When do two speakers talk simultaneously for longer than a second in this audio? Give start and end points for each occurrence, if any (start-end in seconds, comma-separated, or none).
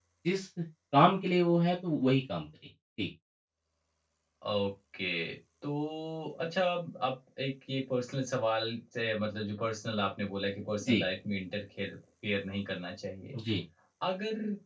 none